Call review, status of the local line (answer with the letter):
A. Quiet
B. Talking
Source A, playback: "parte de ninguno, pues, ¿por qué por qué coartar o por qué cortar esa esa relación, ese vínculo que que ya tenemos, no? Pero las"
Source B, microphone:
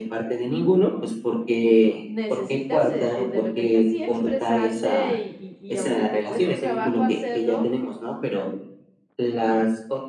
B